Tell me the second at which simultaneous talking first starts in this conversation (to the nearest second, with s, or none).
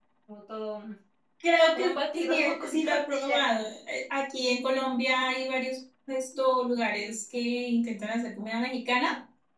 2 s